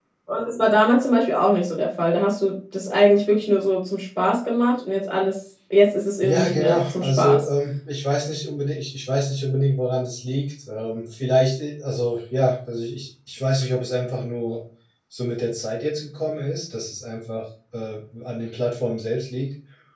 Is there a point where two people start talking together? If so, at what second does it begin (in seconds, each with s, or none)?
6.2 s